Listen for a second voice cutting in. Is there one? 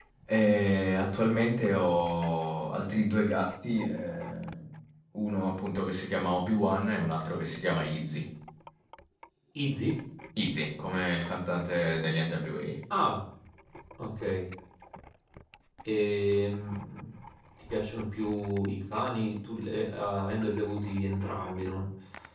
No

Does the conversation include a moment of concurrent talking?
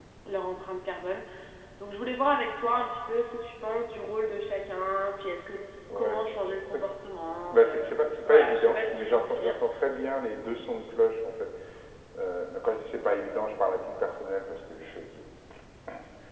Yes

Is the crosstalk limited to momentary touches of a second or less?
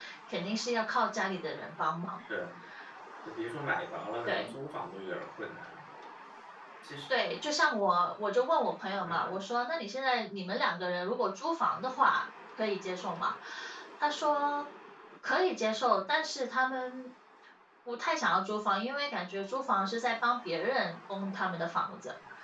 Yes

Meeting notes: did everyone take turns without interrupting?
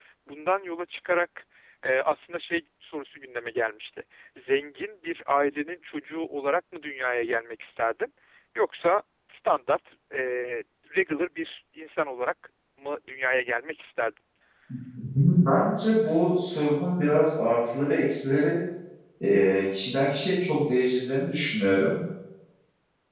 Yes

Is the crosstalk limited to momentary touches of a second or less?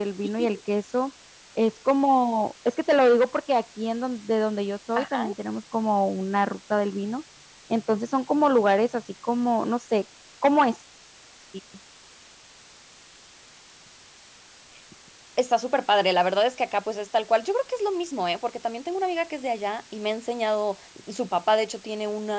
Yes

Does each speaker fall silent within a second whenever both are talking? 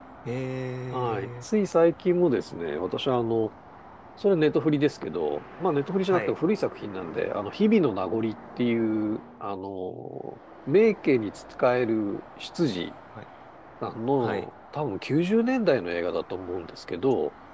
Yes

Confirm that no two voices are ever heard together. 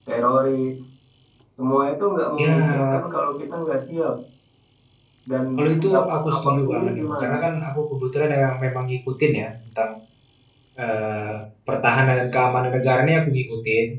No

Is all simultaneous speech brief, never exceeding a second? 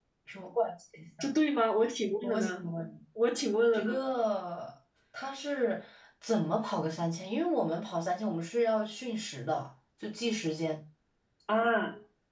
Yes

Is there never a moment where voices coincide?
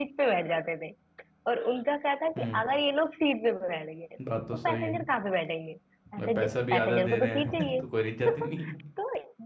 No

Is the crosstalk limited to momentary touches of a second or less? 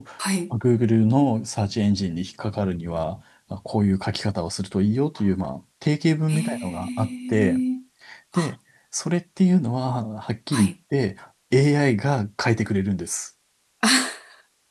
No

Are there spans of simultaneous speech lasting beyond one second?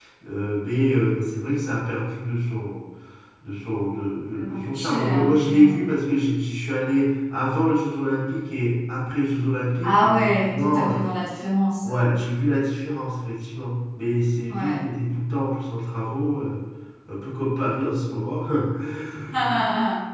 Yes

